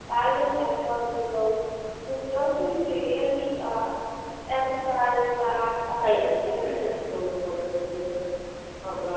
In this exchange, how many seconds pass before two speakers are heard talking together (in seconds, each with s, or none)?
6.0 s